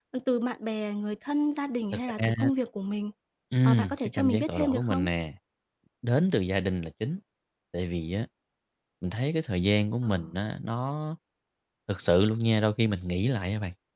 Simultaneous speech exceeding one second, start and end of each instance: 3.6-5.1

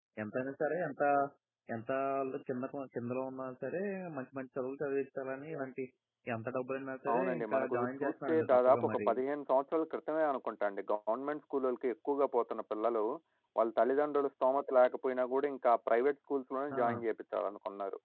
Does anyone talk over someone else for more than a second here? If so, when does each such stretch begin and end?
7.1-9.1

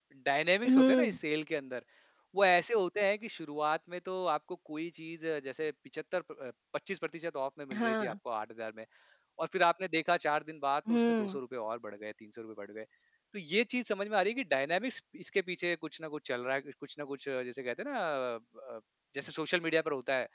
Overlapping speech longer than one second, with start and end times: none

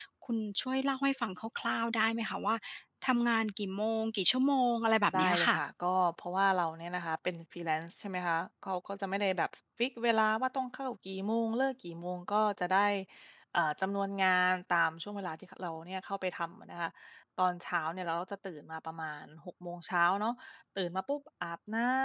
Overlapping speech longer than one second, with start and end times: none

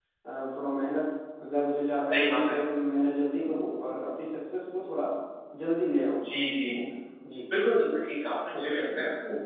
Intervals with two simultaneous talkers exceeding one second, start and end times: none

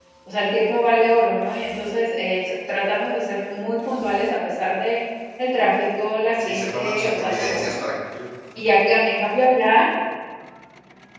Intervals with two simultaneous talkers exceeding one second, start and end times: 6.4-7.8

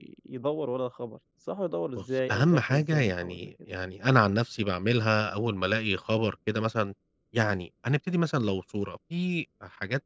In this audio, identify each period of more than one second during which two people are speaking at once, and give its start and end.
2.0-3.4

